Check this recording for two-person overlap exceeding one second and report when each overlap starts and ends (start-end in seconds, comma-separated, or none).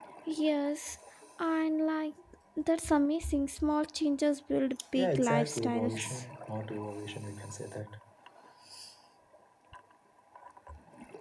5.0-6.2